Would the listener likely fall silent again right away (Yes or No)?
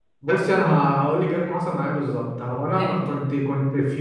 Yes